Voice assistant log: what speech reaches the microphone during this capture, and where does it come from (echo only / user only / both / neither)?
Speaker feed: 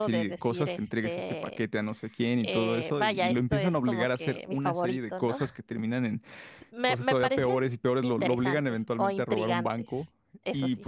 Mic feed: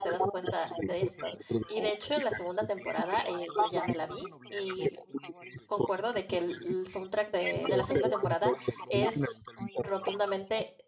both